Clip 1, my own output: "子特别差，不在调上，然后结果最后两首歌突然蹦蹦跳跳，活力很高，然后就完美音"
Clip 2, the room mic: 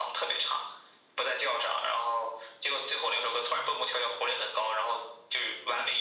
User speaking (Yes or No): No